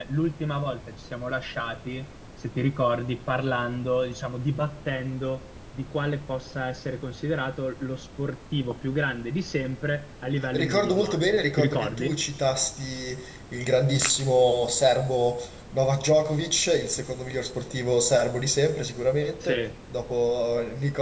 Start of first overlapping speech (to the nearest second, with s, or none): 11 s